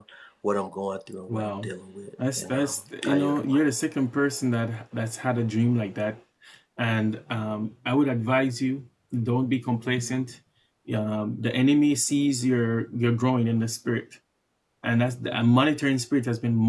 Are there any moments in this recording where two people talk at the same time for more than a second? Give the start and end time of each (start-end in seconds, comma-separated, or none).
2.4-3.6